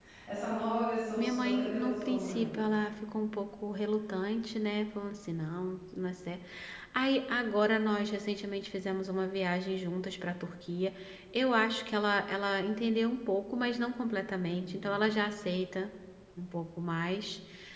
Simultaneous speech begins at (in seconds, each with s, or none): 1.2 s